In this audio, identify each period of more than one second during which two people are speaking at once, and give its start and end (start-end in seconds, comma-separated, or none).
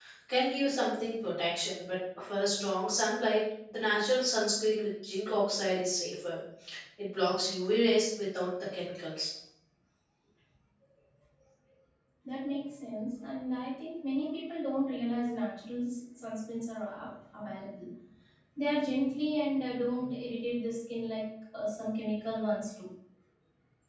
none